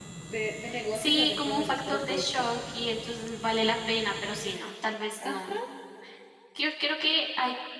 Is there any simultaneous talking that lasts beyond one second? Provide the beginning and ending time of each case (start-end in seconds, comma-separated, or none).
0.9-2.5